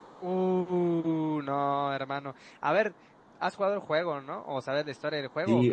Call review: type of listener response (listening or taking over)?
taking over